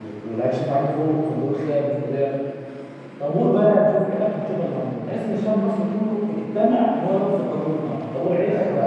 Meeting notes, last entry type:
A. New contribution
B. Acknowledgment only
A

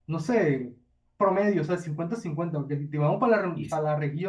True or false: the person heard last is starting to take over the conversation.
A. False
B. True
A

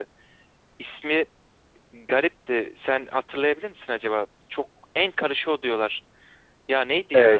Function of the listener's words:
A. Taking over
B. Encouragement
A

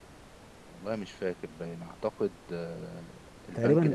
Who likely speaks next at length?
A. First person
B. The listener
B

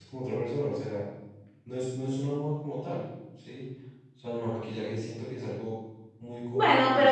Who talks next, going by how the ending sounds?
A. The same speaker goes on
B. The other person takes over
B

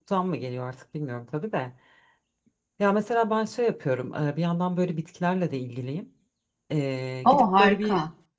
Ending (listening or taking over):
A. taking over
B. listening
B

